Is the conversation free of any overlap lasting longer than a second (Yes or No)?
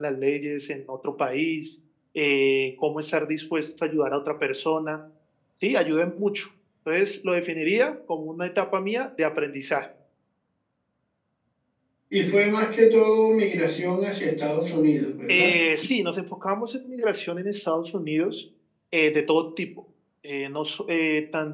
Yes